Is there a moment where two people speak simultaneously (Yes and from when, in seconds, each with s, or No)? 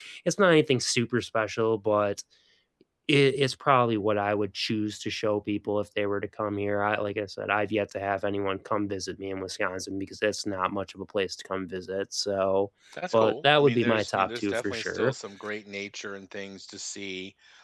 Yes, from 13.1 s